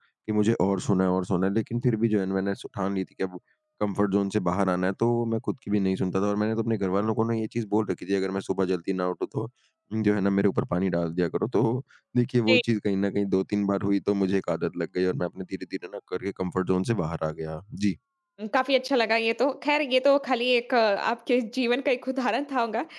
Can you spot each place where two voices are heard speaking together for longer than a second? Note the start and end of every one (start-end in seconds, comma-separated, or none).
none